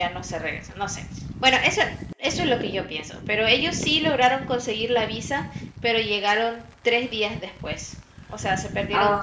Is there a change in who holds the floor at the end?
Yes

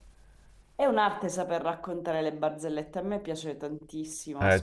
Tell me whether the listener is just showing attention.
No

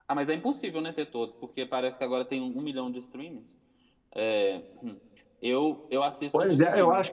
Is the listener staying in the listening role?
No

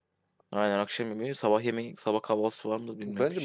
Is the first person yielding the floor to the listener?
Yes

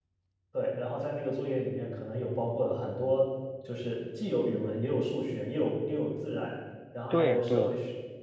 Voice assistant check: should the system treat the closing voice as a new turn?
No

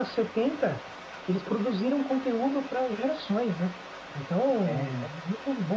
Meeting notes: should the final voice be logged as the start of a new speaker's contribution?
No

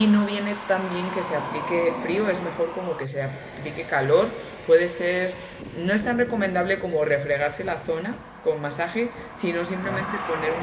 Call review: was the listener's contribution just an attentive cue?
Yes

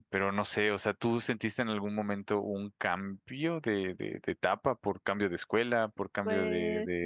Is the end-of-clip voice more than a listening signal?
No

